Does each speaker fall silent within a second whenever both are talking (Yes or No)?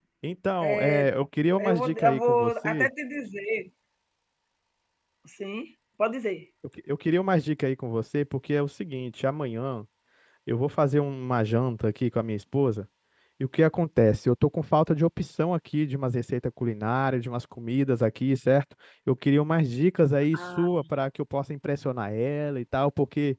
No